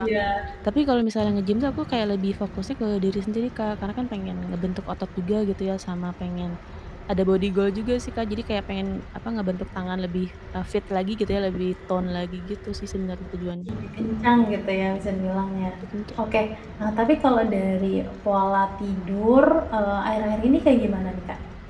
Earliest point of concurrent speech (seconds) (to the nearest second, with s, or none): none